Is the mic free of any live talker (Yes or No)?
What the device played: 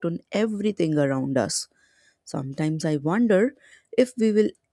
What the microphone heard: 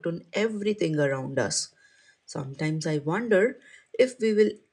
Yes